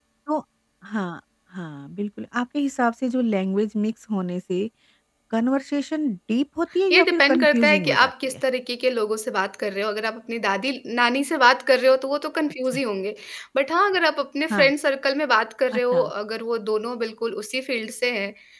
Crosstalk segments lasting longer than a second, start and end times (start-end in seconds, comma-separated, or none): 6.9-8.3